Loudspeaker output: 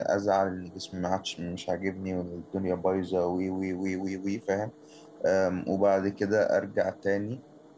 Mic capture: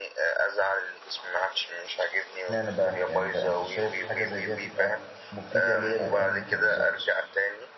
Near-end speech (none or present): present